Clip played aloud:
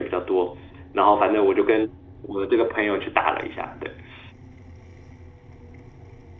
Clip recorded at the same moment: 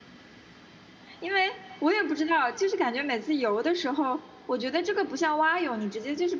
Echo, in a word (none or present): none